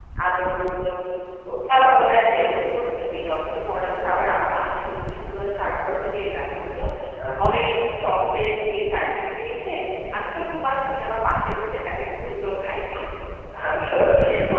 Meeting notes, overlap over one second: none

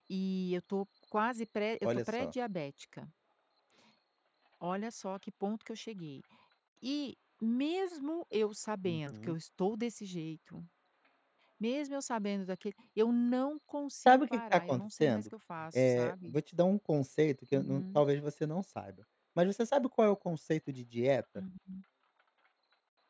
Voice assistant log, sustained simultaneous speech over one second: present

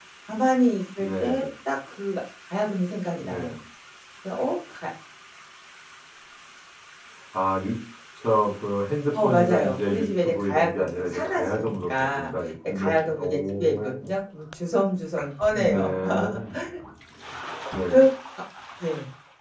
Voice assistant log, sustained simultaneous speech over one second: present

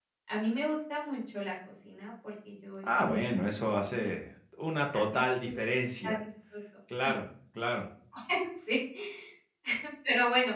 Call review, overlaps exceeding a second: present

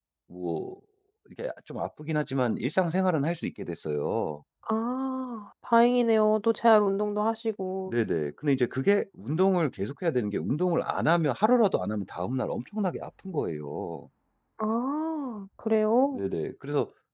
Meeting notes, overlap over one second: none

